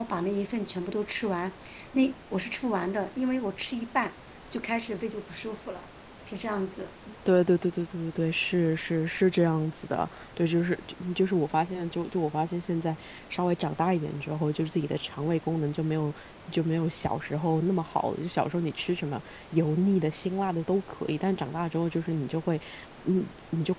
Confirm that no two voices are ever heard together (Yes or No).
Yes